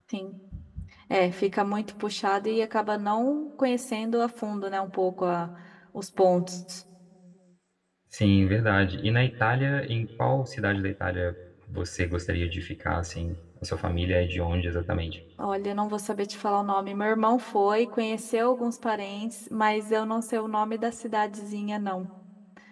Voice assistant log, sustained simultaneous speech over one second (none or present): none